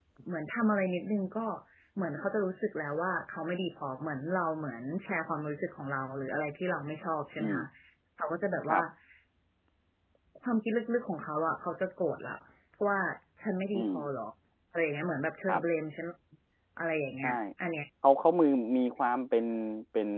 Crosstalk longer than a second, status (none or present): none